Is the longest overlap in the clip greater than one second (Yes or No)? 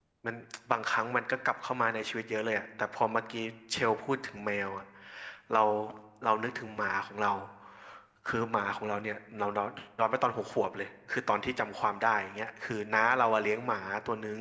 No